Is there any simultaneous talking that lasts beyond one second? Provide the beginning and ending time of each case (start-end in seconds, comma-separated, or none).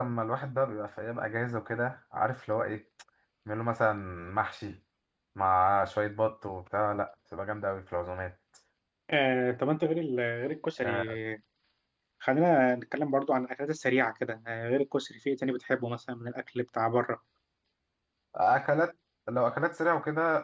none